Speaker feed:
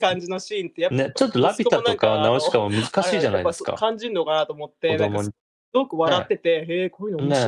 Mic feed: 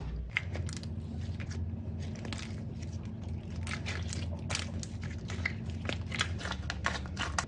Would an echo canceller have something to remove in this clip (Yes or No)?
No